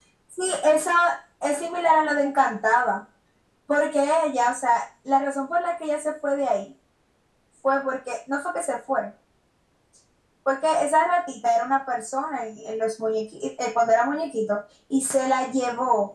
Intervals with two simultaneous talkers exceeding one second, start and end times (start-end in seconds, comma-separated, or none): none